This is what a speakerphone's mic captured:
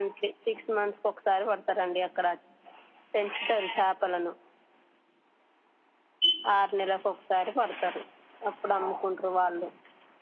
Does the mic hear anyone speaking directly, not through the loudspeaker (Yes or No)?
No